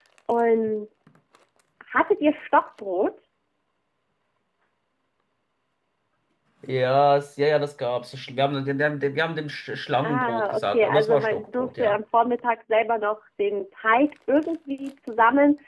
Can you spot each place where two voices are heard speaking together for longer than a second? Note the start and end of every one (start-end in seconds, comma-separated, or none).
10.1-12.0